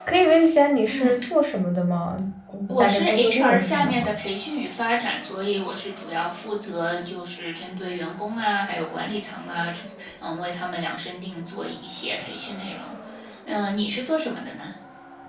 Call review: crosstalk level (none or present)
present